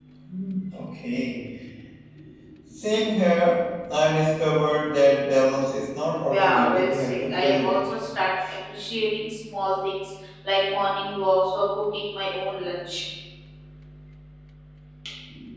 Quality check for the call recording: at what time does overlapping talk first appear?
6.2 s

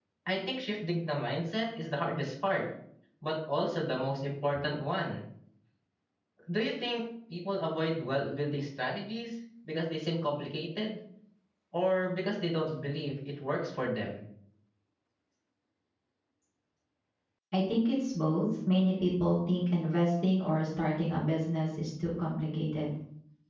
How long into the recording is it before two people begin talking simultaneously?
none

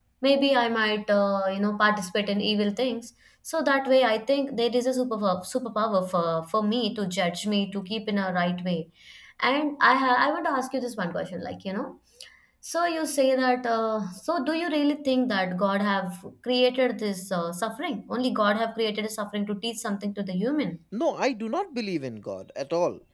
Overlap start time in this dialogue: none

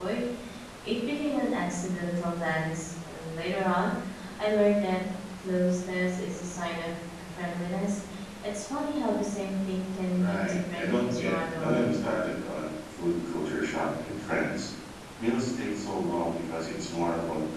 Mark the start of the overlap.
10.2 s

